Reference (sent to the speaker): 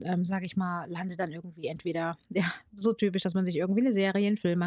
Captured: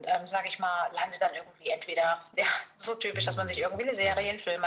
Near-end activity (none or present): present